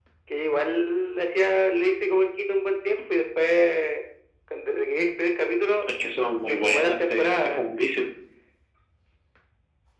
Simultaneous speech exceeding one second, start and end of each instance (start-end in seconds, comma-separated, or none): 6.4-7.7